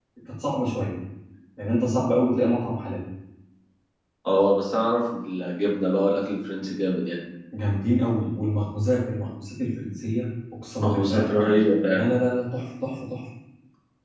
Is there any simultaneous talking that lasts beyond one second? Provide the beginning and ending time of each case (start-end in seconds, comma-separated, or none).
none